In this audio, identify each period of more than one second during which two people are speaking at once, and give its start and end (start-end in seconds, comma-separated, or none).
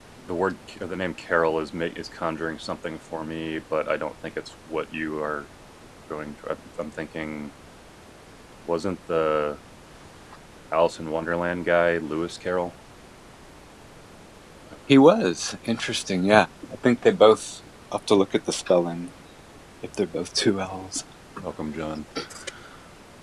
none